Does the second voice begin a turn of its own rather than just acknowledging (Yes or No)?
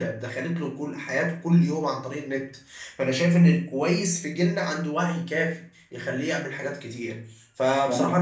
No